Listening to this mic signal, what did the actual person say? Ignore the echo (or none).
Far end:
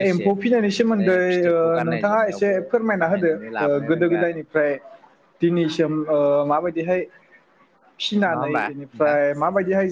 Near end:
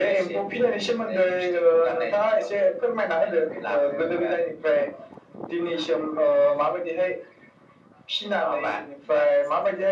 none